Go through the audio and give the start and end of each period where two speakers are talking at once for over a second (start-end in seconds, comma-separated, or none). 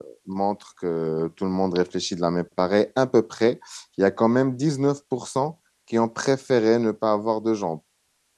none